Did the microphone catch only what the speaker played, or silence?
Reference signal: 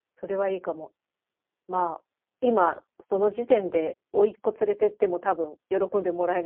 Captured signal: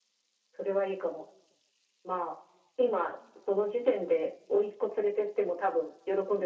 Yes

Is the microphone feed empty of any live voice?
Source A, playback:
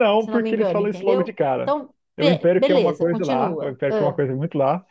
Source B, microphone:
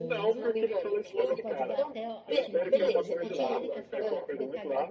No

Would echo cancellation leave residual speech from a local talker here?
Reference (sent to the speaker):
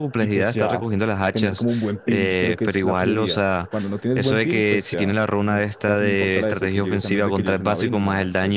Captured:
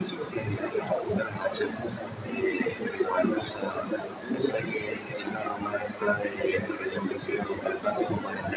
No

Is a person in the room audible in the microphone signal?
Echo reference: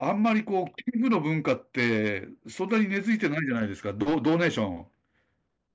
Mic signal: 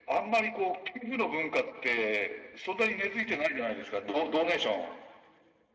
No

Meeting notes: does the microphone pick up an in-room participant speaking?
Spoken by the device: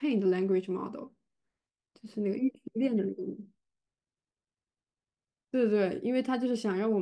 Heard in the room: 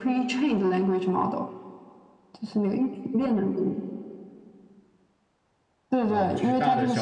Yes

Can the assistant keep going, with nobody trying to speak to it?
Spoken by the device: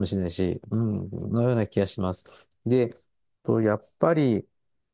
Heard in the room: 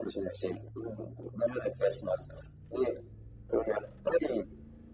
Yes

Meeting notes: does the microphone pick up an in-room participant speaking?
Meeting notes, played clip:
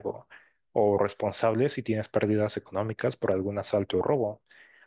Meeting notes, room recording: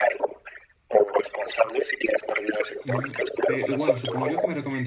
Yes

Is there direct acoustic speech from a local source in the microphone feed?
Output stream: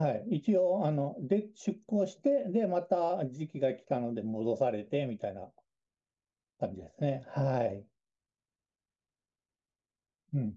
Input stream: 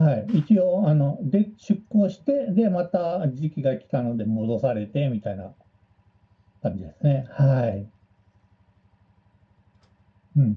No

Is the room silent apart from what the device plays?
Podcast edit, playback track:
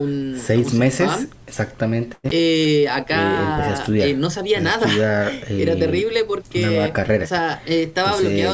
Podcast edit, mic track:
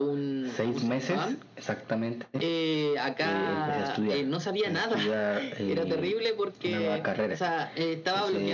Yes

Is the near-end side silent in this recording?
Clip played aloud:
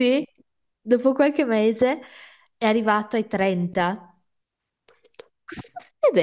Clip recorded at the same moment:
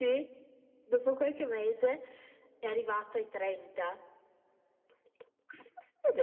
Yes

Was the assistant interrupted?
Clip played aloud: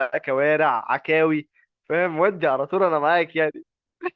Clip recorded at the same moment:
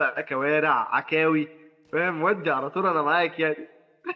No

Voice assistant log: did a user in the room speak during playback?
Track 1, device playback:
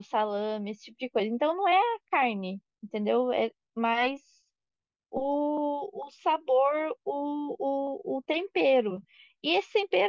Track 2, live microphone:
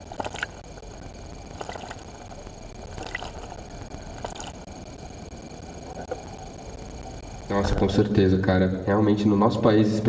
Yes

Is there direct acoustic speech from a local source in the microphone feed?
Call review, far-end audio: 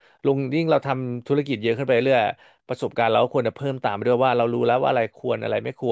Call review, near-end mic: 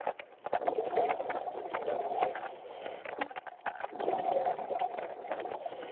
No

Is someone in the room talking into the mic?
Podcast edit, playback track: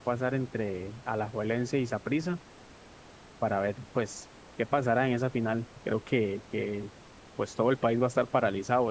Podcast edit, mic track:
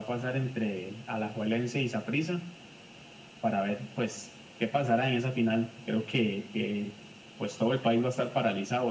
No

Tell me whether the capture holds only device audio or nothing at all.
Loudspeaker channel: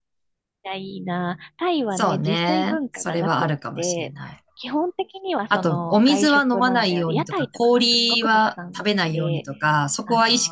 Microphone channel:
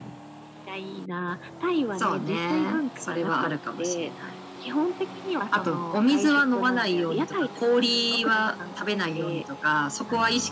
Yes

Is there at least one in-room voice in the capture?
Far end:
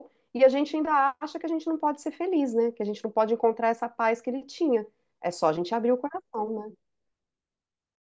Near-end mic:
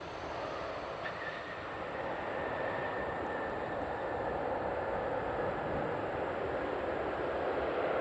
No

